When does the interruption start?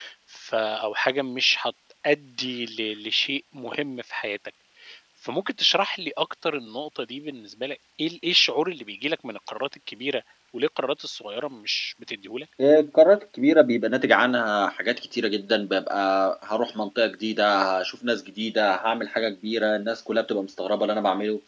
none

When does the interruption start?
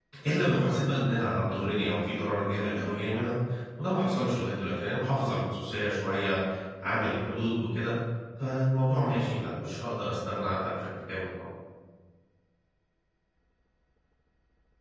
none

